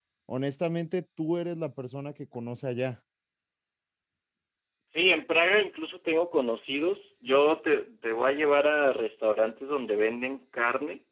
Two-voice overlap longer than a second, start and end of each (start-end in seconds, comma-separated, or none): none